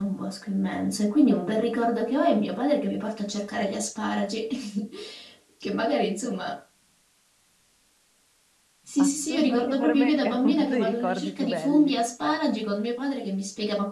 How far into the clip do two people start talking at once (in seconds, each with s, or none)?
9.0 s